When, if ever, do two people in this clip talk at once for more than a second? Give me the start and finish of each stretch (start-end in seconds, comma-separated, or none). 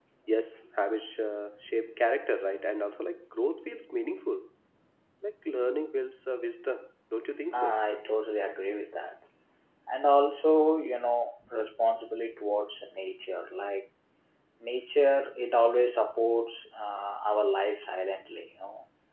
none